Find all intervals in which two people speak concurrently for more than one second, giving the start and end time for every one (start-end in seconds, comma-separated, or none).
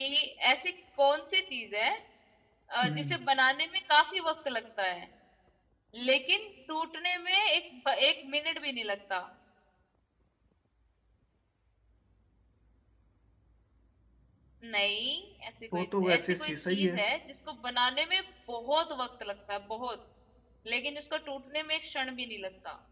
15.7-17.0